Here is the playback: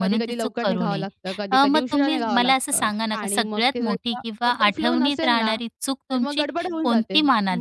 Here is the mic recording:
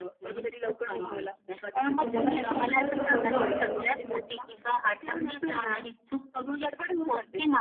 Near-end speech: present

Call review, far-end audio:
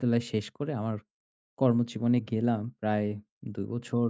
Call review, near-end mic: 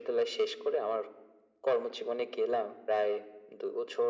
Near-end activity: none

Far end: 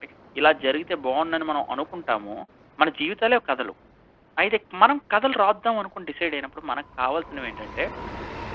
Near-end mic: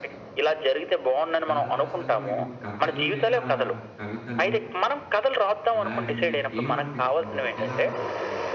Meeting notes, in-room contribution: present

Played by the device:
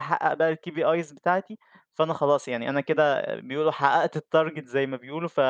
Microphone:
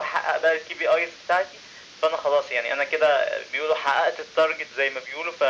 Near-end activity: none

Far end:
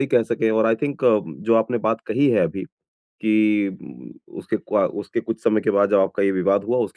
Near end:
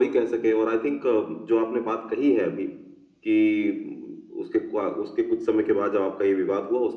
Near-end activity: none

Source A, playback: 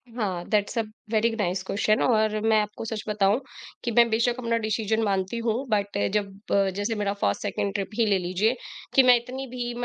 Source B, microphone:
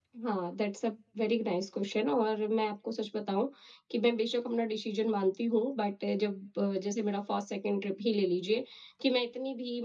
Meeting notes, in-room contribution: none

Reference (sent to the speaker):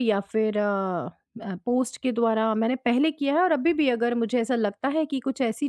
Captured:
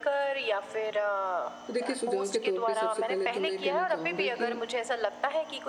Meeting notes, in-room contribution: present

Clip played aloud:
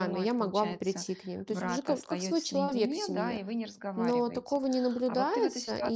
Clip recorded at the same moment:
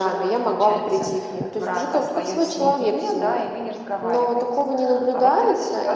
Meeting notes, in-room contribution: none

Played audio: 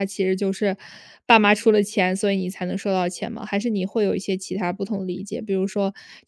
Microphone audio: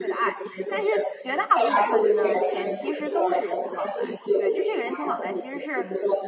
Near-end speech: present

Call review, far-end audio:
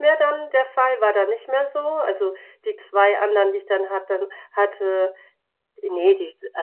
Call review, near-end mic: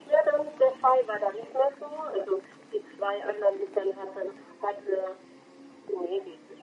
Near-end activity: none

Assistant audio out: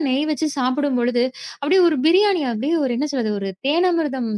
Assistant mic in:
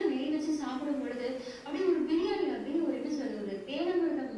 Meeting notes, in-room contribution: none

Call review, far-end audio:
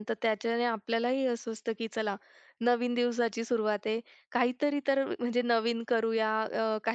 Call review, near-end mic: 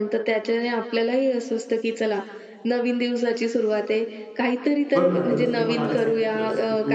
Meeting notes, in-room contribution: present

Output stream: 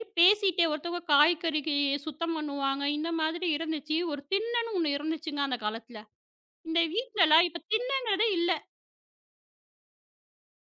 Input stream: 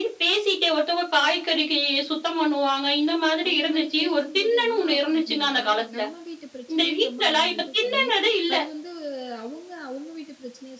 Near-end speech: present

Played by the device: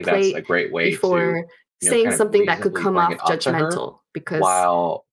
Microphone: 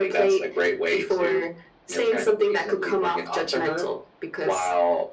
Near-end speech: none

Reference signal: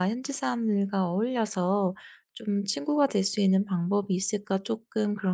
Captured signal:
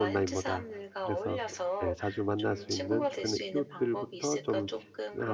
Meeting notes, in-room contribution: present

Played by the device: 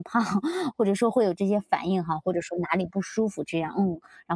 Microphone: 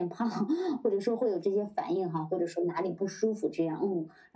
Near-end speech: none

